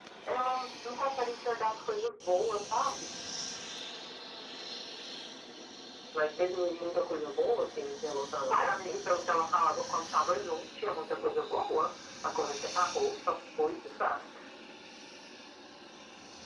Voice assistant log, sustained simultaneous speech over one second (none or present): none